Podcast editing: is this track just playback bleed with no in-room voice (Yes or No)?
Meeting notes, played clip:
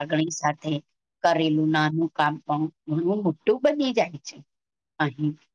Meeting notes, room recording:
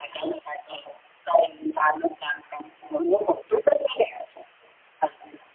Yes